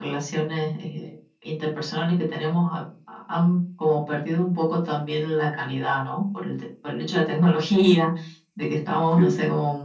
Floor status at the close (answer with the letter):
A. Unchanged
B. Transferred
A